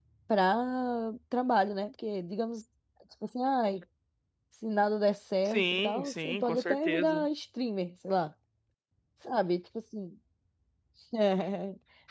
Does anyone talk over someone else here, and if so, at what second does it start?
5.5 s

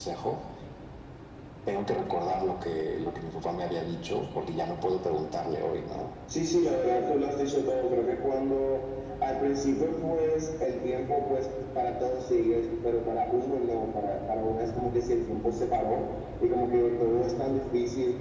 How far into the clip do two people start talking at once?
none

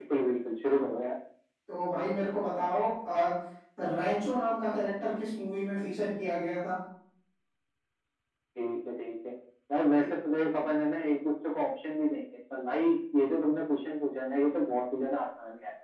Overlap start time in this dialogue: none

